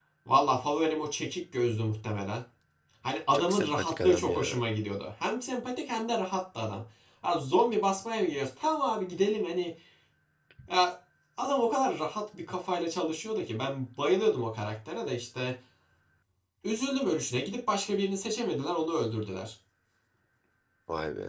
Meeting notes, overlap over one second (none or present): present